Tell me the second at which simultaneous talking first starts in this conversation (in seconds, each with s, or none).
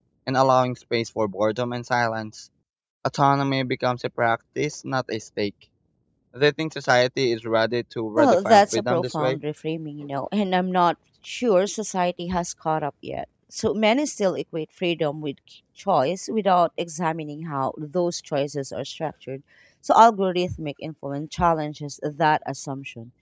8.2 s